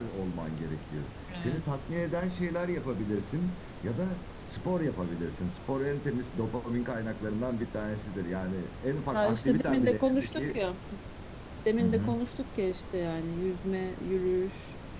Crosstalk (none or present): present